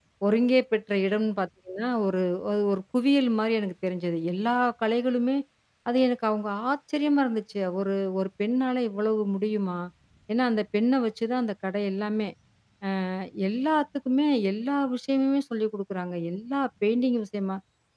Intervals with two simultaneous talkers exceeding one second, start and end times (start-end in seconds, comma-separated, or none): none